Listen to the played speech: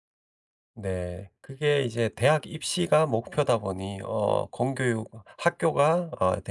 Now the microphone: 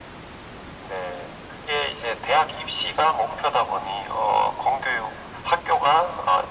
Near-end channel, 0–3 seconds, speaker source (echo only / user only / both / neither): echo only